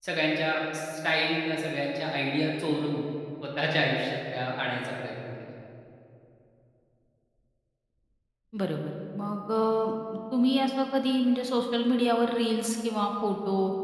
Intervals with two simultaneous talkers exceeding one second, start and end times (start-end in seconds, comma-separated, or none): none